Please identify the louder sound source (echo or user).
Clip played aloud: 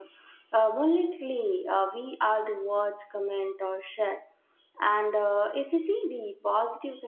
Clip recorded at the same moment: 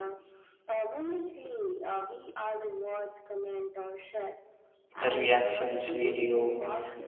user